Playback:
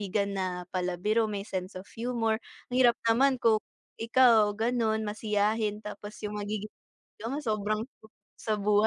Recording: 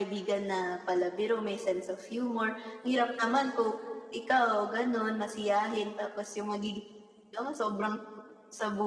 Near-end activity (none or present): none